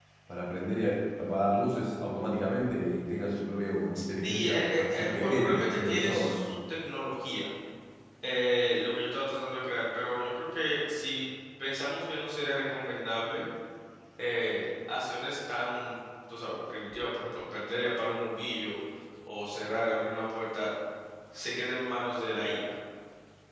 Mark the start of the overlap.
4.2 s

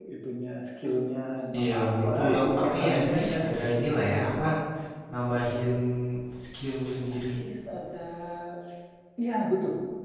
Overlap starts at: 1.6 s

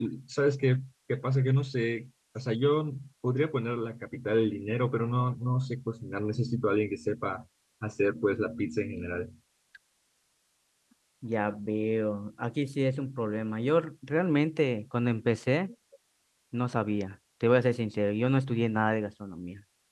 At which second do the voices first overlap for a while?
none

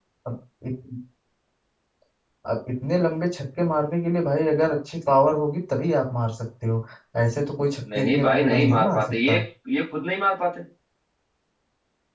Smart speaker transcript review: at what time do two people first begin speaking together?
8.0 s

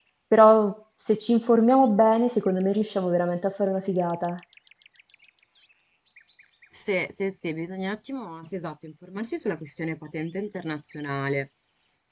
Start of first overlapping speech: none

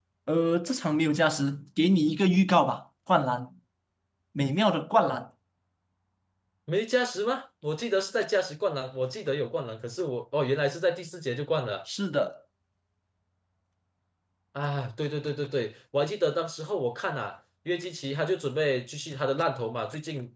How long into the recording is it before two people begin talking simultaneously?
none

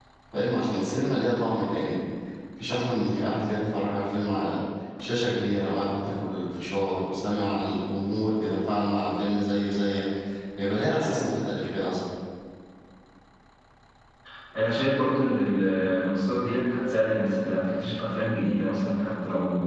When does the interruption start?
none

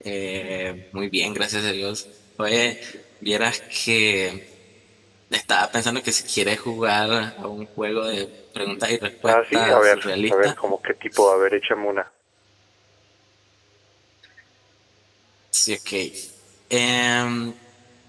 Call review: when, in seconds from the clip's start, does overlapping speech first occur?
9.2 s

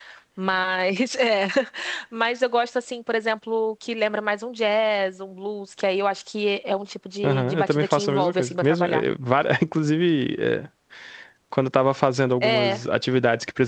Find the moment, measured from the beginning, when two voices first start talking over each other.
7.2 s

